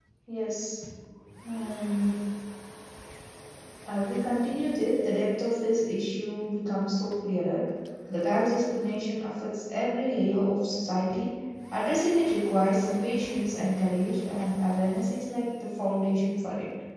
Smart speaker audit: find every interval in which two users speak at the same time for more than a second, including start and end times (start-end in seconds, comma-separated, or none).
none